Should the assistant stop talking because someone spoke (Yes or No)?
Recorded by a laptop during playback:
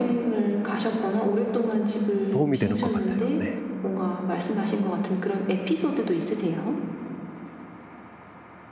Yes